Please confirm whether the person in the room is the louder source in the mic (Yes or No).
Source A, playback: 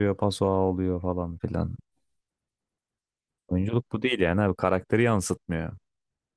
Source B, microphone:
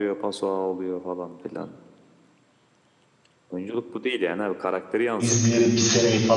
Yes